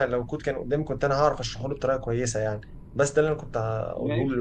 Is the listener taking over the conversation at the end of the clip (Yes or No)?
Yes